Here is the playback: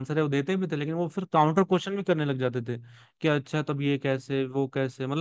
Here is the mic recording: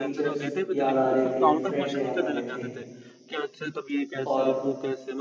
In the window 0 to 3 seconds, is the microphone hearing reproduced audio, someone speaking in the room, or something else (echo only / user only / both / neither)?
both